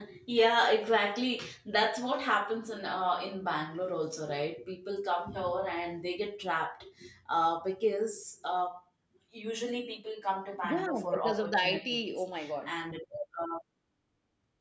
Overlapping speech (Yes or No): Yes